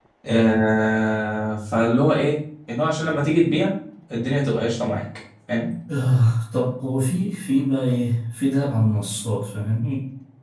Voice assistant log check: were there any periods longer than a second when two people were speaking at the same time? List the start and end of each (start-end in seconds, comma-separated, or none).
none